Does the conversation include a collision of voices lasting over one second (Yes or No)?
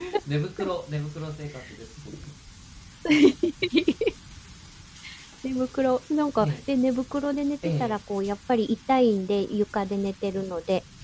No